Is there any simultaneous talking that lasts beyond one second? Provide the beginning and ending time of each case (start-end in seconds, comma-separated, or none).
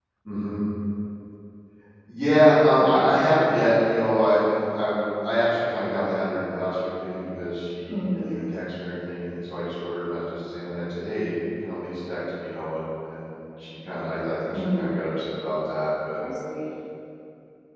none